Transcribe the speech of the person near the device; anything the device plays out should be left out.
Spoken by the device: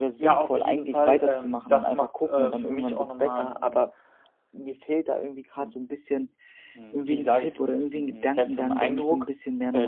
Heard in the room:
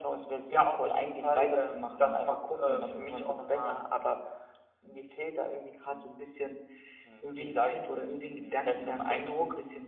none

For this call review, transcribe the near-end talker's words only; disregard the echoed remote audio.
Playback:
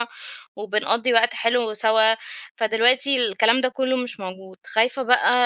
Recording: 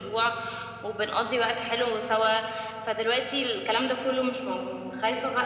none

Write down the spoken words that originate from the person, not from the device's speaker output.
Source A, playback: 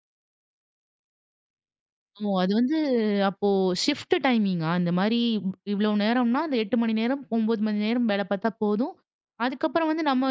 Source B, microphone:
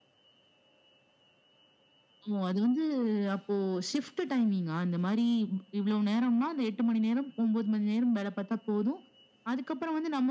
none

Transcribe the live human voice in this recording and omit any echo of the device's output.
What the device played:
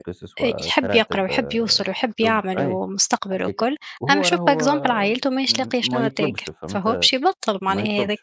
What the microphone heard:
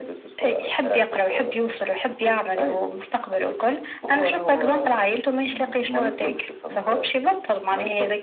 none

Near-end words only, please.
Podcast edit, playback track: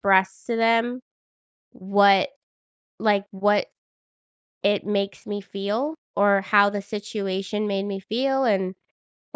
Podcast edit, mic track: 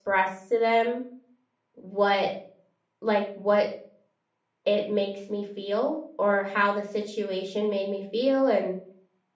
none

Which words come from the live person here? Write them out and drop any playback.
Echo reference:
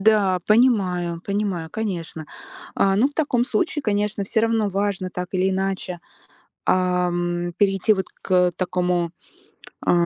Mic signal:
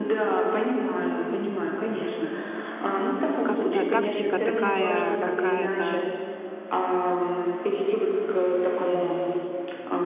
как-то тактика такая какая-то

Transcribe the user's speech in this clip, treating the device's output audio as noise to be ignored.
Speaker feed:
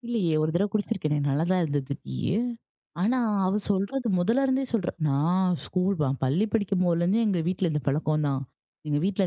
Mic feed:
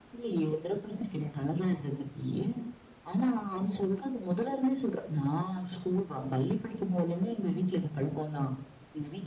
none

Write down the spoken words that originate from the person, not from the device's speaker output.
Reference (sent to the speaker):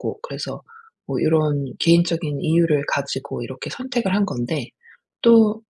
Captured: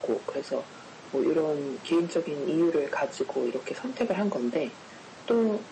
none

